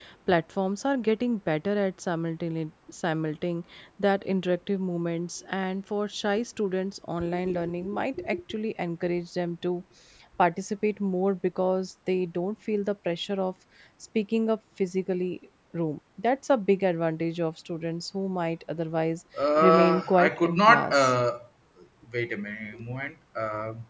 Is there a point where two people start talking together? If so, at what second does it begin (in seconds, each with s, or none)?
19.6 s